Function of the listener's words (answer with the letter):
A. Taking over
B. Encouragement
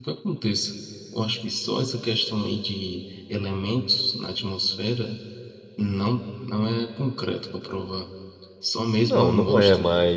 A